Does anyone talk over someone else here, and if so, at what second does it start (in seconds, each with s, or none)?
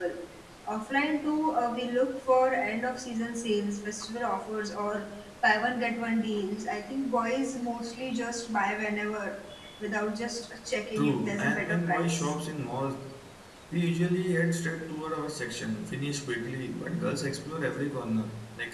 11.0 s